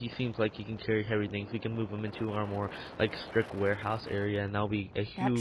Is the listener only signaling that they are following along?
Yes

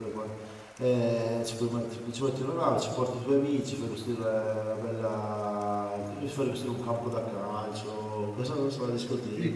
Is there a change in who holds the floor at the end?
Yes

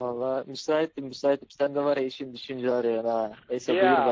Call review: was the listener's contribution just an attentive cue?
No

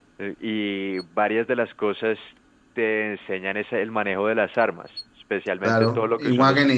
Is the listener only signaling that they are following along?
No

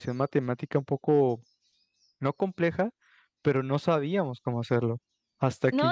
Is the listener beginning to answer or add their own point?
Yes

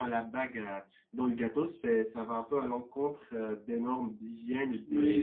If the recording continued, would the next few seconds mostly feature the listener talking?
Yes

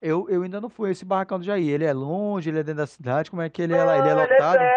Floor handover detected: Yes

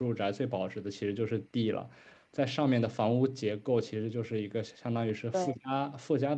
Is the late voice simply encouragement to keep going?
Yes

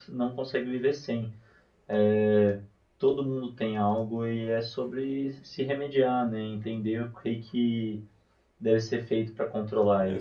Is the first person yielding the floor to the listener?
Yes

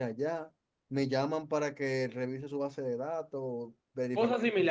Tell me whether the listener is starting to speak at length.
Yes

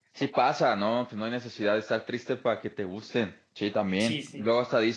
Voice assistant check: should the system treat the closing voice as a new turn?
No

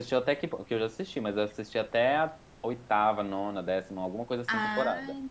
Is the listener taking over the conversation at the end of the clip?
Yes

